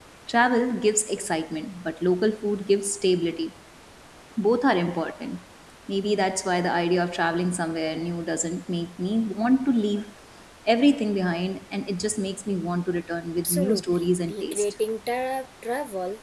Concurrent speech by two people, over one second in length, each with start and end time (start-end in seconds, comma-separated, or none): 13.4-14.7